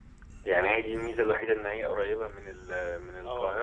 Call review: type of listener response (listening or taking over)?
taking over